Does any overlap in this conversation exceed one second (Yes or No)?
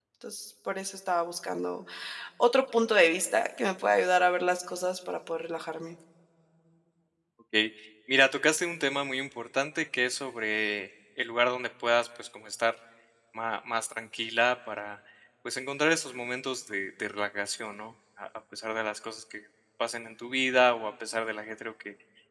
No